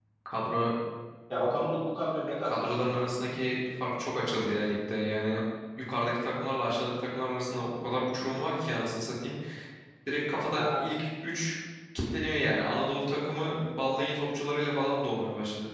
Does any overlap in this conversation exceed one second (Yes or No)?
No